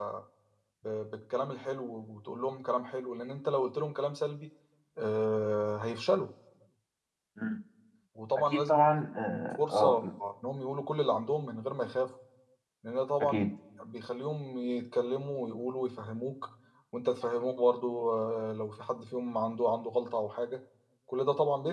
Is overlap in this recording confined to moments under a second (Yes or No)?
No